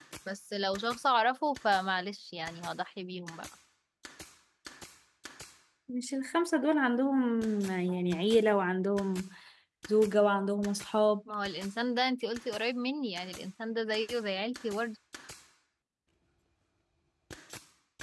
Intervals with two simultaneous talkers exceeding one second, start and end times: none

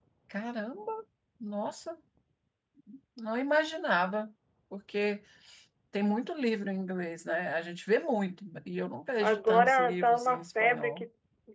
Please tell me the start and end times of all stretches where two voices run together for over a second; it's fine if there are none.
9.2-11.1

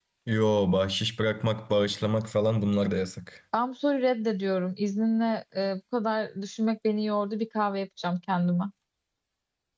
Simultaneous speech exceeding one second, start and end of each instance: none

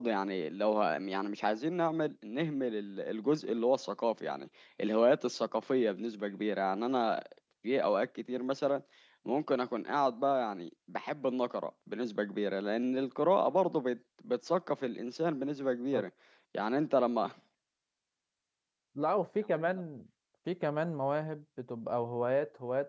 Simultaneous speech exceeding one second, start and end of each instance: none

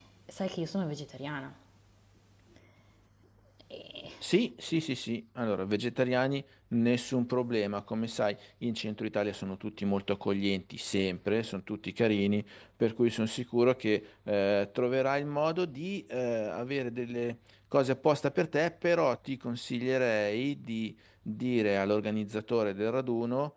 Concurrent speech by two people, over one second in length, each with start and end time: none

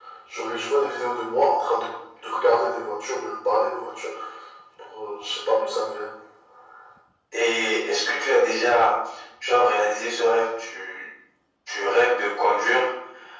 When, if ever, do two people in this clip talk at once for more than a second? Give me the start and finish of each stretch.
none

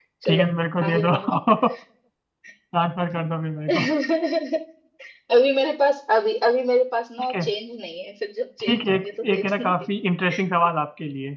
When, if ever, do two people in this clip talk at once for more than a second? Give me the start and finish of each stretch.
8.7-9.9

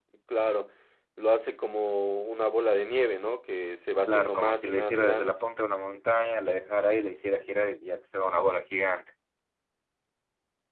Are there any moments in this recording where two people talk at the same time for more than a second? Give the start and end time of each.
4.0-5.4

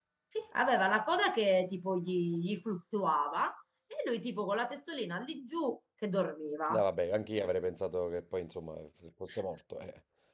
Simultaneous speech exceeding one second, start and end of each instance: none

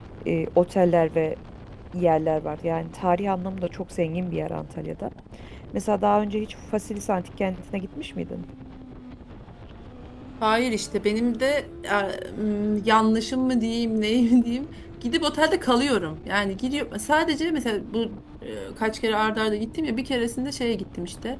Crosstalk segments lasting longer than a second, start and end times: none

